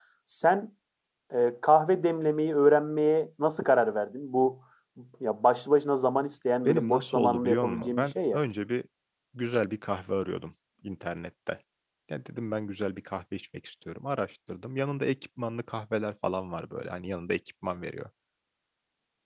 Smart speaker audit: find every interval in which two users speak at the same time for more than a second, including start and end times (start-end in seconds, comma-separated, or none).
6.6-8.4